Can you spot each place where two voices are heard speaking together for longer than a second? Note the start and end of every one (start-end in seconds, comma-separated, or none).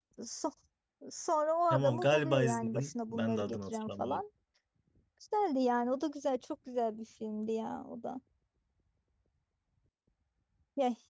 1.7-4.2